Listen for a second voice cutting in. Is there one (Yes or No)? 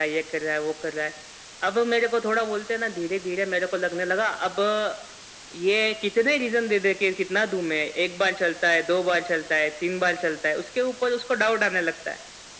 No